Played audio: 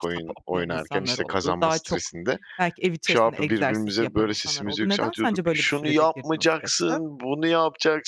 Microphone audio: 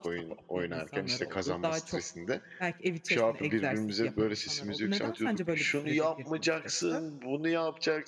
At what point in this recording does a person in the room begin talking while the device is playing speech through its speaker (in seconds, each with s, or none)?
none